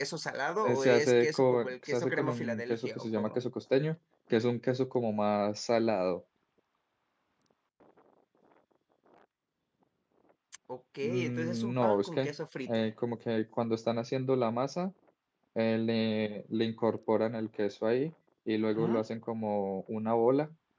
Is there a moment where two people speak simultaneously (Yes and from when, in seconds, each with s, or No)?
Yes, from 0.6 s